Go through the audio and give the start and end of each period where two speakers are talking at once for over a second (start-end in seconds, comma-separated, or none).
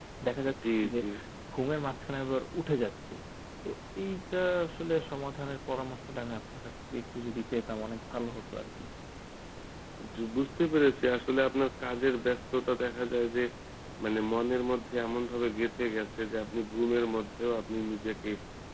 none